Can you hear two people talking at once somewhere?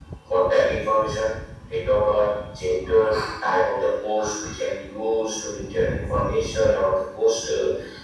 No

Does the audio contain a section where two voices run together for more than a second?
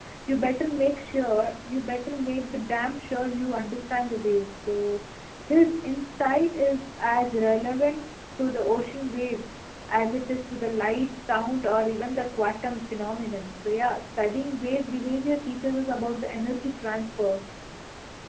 No

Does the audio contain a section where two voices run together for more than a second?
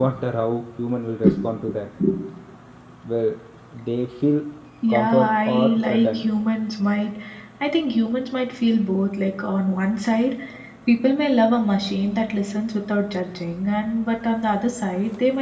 Yes, from 4.9 s

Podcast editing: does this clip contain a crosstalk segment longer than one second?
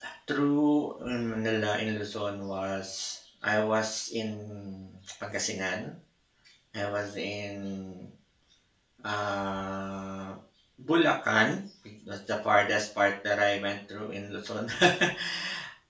No

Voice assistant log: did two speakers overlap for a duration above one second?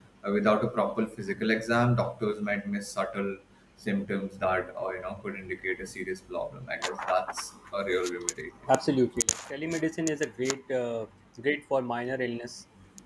No

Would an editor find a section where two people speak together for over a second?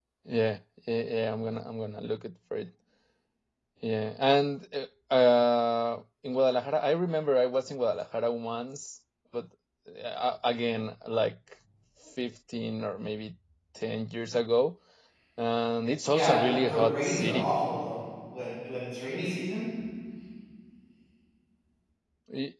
Yes, from 16.1 s

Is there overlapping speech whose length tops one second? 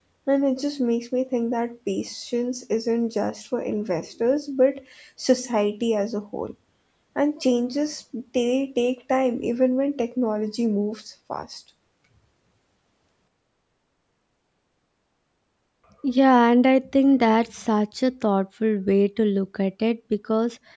No

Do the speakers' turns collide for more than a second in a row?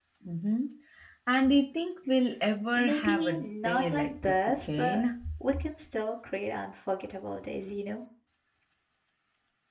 Yes, from 2.7 s

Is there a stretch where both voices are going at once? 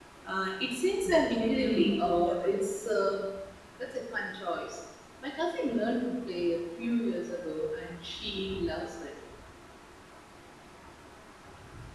Yes, from 1.0 s

